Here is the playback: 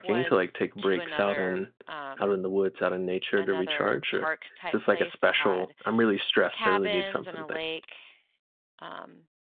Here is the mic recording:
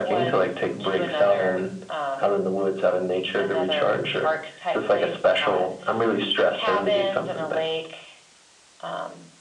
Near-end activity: none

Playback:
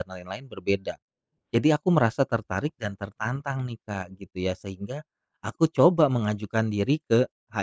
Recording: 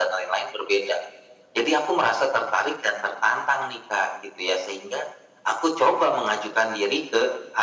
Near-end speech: none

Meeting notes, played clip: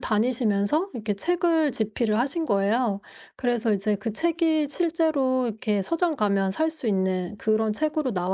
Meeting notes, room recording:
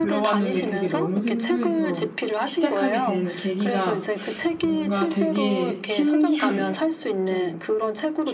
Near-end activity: present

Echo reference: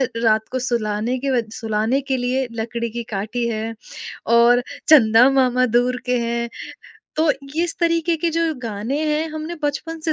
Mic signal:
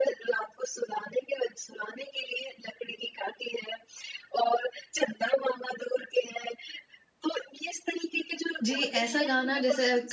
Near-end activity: present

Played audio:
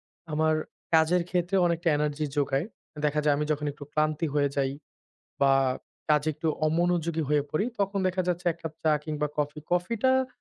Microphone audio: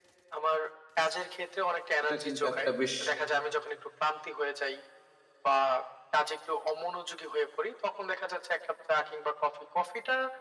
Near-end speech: present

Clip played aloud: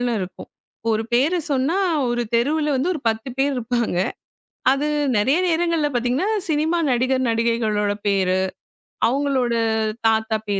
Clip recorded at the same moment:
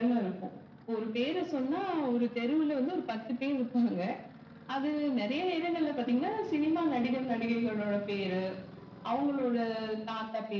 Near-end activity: none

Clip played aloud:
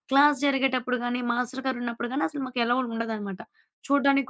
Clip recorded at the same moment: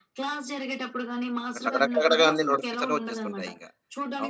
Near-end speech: present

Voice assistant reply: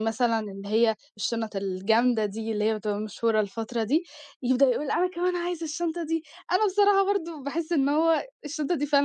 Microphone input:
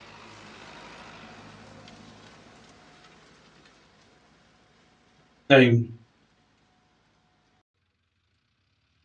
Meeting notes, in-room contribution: present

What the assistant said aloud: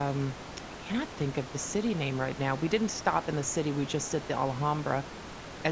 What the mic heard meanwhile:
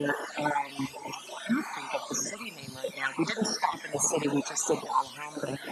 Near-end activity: none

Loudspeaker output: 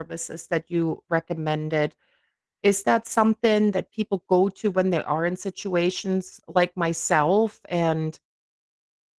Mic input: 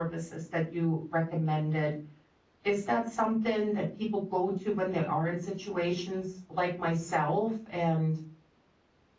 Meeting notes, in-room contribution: none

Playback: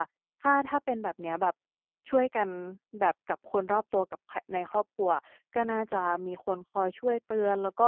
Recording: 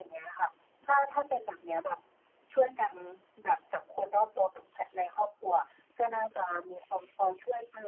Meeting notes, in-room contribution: none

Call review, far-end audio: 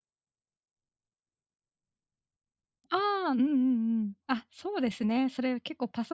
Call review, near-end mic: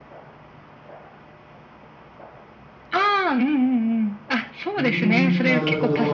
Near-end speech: present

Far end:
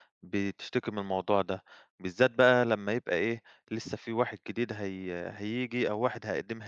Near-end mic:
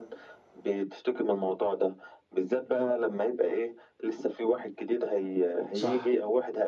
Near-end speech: present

